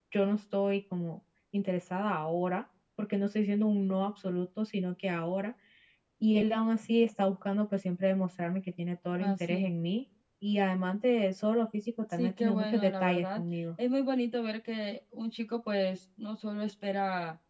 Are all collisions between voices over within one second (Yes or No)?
No